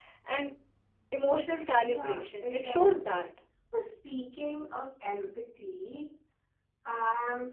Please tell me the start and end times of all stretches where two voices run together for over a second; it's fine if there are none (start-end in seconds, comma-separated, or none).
1.8-3.1